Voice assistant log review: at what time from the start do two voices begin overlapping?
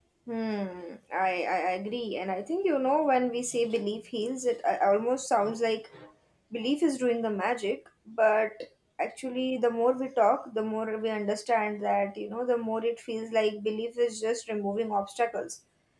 none

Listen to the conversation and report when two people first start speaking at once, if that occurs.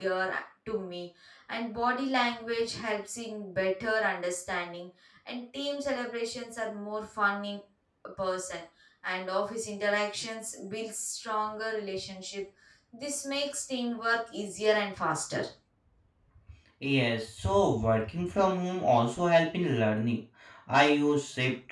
none

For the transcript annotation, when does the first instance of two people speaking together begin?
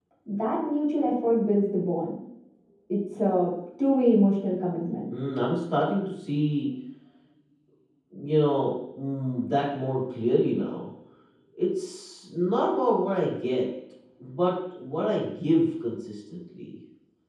none

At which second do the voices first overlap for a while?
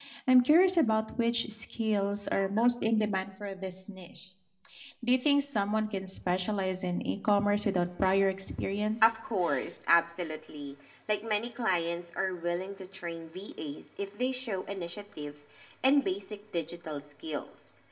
none

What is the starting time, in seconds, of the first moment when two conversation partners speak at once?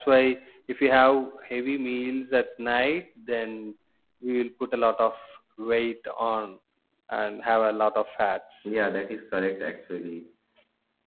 none

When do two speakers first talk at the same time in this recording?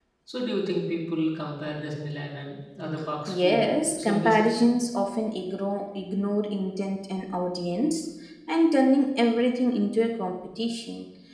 3.3 s

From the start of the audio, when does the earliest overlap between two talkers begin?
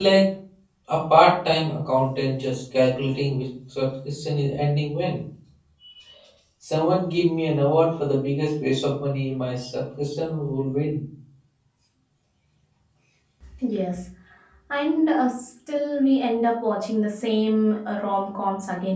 none

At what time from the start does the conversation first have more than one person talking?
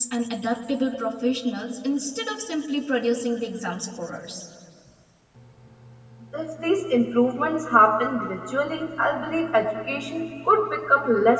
none

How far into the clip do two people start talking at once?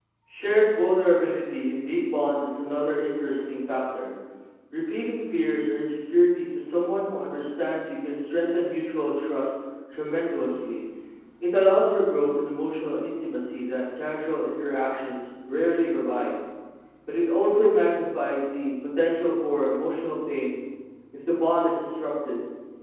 none

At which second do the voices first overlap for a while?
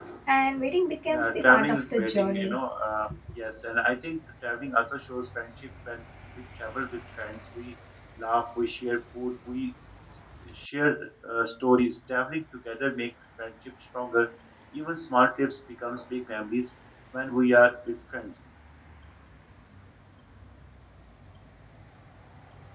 1.1 s

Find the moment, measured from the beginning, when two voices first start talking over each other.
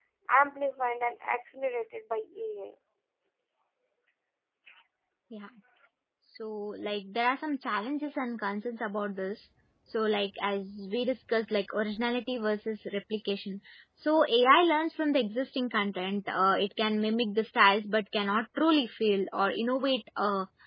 none

